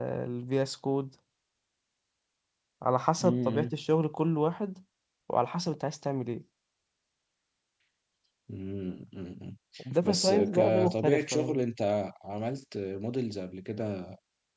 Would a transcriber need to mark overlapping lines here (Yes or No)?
Yes